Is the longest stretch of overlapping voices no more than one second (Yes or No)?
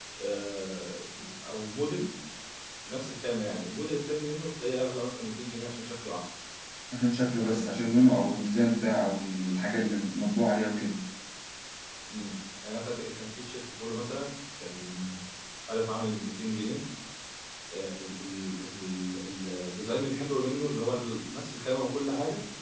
Yes